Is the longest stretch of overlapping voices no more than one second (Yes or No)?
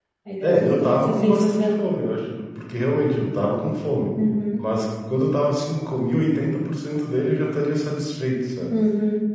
No